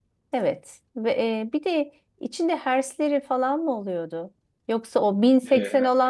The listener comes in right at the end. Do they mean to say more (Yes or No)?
No